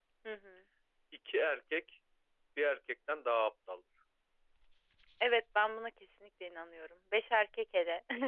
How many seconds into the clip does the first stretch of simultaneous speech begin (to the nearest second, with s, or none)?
none